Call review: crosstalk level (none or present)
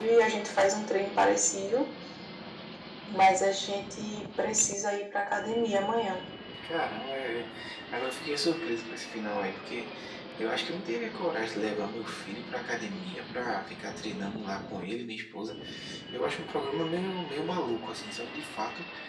none